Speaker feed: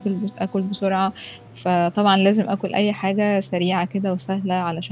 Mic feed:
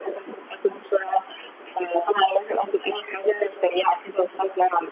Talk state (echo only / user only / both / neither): echo only